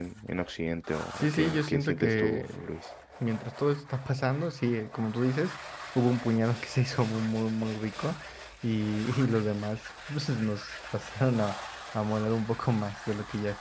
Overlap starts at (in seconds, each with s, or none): 1.2 s